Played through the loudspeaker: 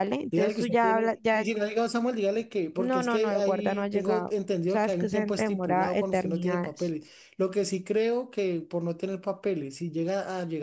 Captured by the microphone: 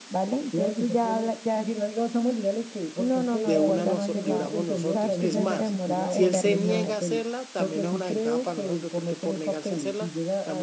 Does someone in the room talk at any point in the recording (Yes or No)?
Yes